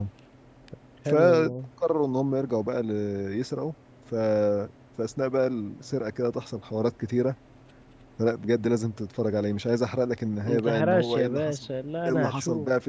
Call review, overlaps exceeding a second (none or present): present